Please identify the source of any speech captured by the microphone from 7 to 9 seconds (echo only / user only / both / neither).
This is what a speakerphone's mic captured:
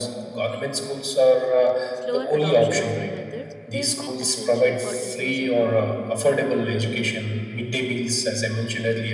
echo only